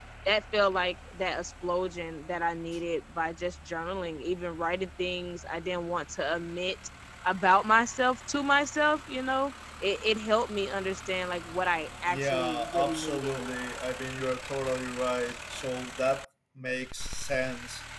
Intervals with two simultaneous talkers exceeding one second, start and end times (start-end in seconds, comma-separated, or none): 12.1-13.4